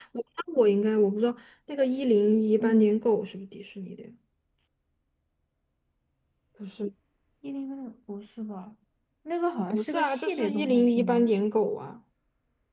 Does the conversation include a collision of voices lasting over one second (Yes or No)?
Yes